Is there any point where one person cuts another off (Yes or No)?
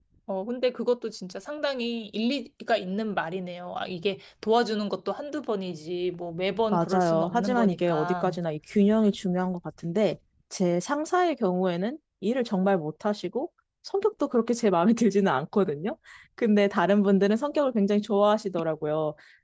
Yes